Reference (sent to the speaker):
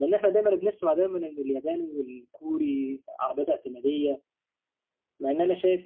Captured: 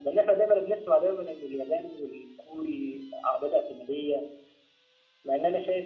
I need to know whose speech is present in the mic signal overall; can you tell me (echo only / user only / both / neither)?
echo only